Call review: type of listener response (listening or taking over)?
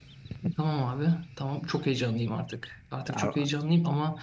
listening